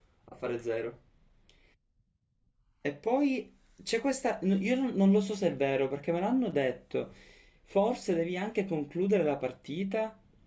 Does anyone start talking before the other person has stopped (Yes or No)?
No